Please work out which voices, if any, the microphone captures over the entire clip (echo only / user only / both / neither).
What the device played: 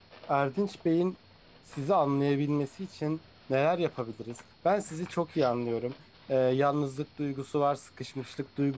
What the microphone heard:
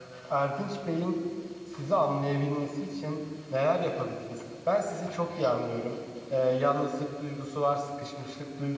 echo only